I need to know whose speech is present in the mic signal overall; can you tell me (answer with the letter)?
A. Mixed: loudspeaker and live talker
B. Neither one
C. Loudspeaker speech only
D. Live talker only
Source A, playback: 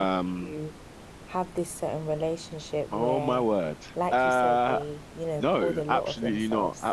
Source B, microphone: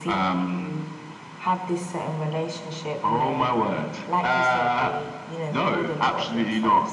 C